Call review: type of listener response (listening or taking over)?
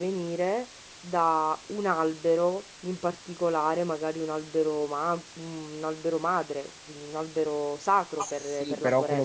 taking over